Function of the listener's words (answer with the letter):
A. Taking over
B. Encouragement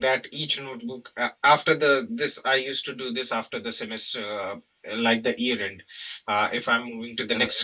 B